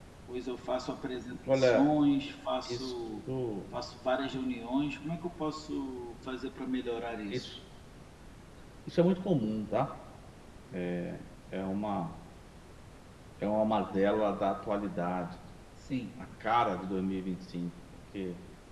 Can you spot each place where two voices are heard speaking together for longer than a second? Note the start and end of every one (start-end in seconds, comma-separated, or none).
none